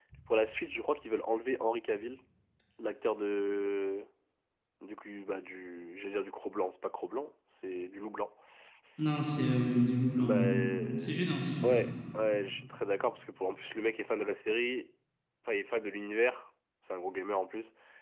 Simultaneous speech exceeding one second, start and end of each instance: none

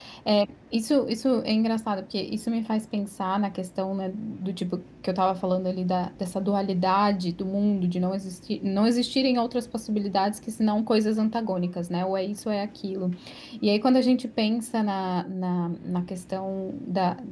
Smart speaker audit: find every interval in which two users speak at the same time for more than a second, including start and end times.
none

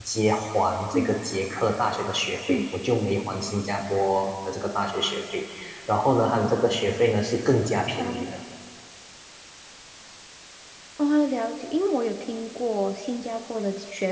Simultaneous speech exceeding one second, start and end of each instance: none

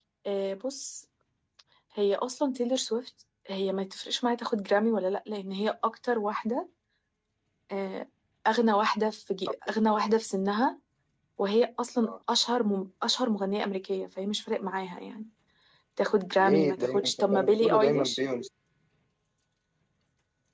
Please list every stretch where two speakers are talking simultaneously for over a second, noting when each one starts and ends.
16.4-18.2

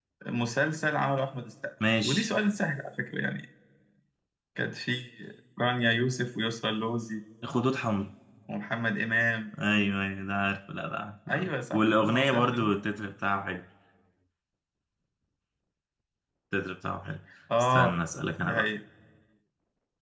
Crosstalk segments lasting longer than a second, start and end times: 11.3-12.8

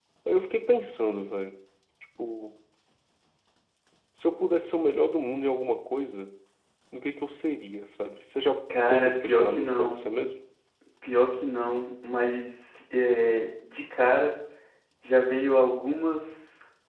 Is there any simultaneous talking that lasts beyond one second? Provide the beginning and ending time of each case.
8.8-10.0

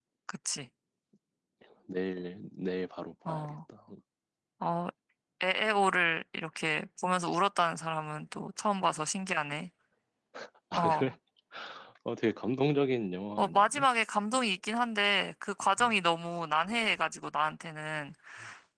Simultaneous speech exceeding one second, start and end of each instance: none

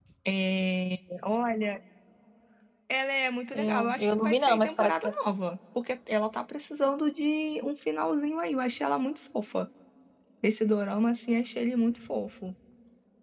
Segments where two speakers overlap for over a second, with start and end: 3.5-5.1

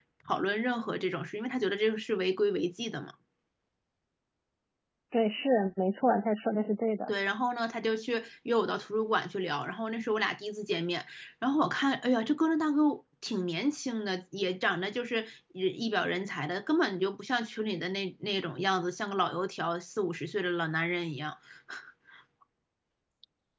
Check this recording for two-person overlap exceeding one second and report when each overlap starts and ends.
none

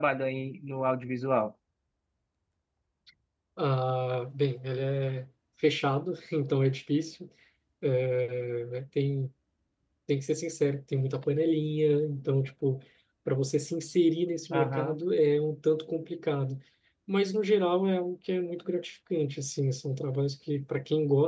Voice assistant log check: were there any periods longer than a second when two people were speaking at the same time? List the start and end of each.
none

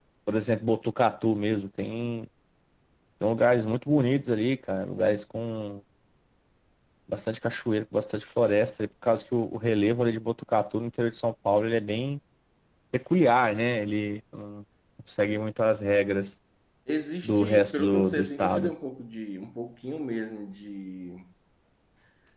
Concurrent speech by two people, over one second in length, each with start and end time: 17.2-18.7

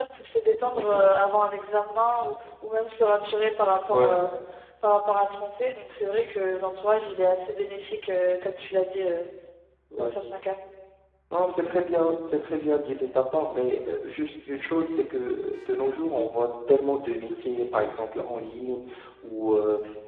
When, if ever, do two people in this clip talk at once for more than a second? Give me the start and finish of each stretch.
none

